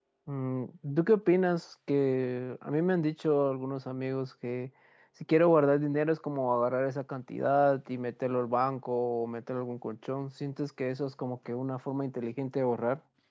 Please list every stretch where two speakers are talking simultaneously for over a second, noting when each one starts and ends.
none

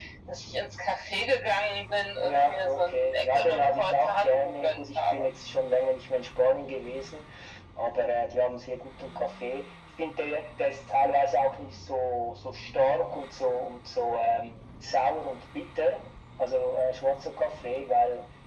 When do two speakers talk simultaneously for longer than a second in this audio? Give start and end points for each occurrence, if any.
2.2-5.2

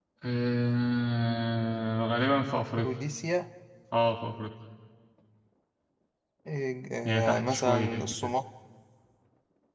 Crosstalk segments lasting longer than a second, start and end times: 7.0-8.3

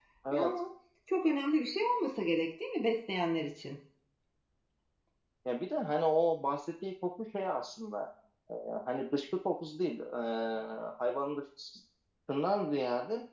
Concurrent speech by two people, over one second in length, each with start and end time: none

